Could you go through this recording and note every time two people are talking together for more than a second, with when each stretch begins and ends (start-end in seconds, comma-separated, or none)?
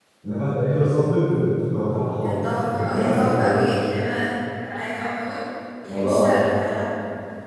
2.2-3.6